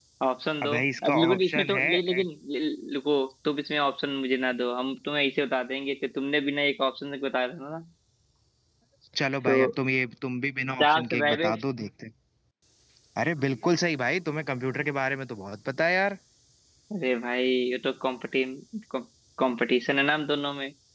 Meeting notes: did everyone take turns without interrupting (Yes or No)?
No